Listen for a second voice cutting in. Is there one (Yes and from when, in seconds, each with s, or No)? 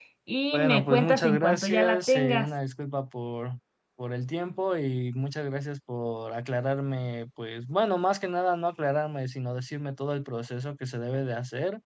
Yes, from 0.5 s